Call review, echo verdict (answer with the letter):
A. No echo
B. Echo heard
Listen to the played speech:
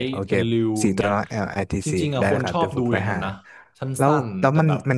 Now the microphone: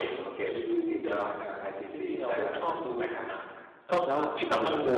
B